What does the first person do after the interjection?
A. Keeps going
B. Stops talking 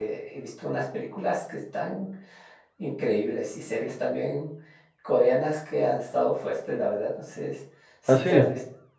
A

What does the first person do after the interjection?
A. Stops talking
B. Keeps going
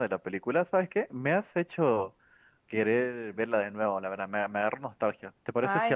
A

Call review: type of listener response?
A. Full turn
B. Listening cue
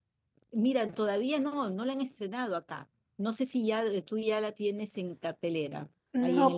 A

